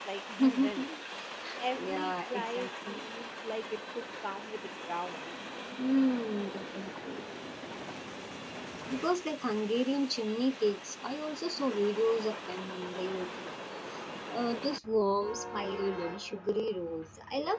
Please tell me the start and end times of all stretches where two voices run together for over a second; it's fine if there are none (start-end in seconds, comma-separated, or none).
1.7-3.1